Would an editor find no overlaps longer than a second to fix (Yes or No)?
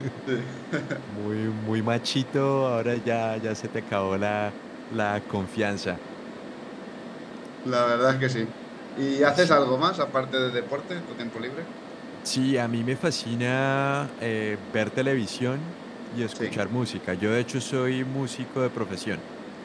Yes